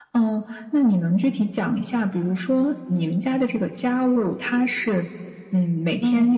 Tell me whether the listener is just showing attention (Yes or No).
Yes